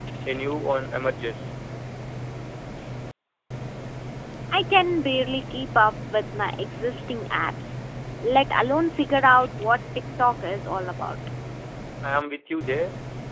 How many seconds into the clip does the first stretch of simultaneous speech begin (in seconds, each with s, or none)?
none